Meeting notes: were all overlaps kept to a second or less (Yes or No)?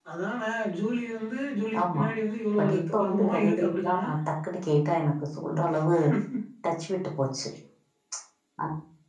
No